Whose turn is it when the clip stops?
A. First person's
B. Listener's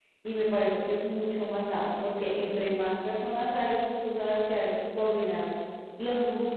A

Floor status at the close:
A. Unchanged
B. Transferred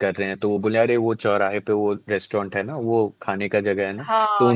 B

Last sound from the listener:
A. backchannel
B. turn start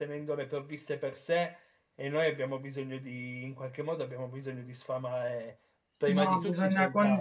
B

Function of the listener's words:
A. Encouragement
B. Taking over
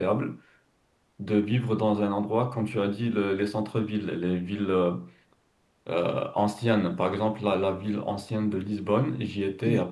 A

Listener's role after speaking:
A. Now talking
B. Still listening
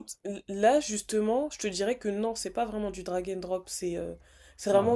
B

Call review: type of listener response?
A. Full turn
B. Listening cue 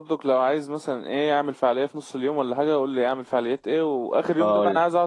B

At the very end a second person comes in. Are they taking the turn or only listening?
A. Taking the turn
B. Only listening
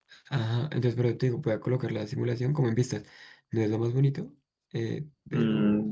A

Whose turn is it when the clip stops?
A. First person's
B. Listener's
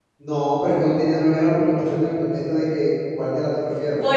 B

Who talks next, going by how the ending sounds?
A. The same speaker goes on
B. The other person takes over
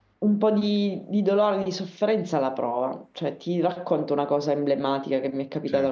A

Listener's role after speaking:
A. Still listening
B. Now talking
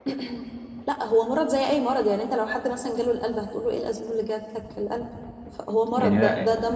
A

